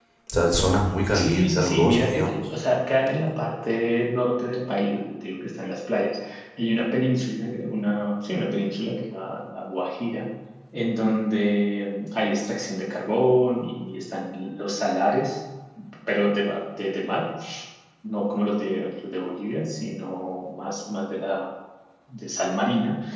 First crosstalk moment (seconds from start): 1.1 s

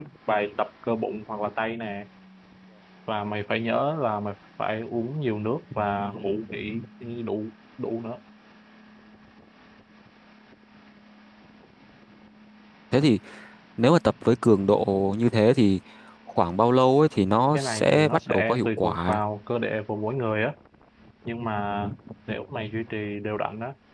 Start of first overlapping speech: 17.5 s

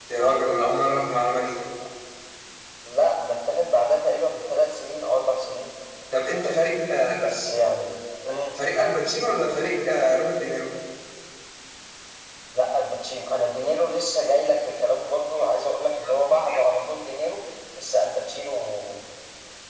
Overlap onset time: none

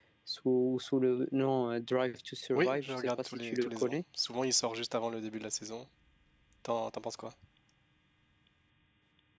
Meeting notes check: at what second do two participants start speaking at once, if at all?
2.5 s

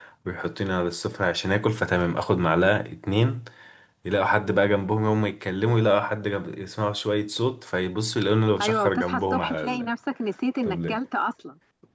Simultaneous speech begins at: 8.6 s

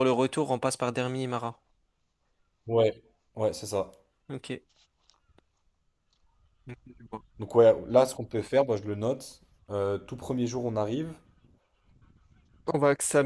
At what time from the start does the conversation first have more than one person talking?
none

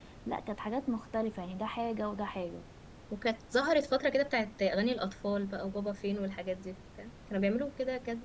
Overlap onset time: none

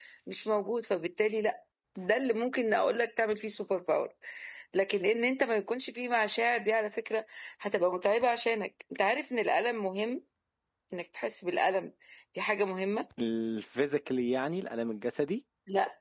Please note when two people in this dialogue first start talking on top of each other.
none

